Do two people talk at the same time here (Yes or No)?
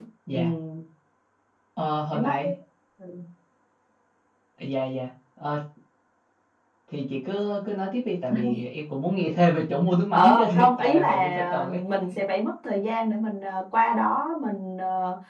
Yes